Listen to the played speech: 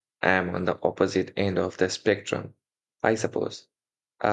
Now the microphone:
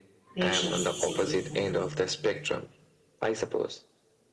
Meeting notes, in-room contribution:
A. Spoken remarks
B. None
A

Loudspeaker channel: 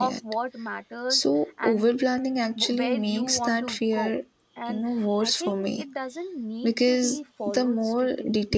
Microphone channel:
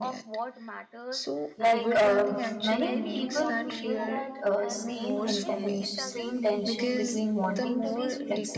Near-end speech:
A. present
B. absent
A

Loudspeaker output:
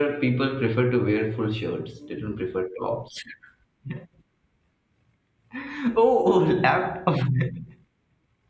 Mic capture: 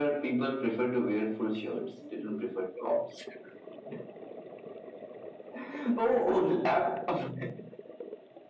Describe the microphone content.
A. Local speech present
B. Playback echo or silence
B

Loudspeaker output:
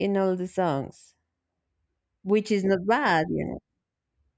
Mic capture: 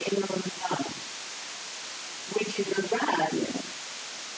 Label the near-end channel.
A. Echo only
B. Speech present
A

